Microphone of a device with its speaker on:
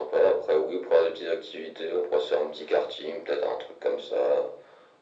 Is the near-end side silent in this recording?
Yes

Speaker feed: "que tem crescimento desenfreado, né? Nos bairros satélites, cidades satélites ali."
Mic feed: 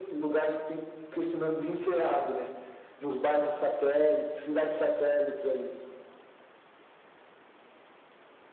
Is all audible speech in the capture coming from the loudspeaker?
Yes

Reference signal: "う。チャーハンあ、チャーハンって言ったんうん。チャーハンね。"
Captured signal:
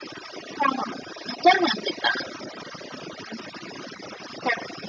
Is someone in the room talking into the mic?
No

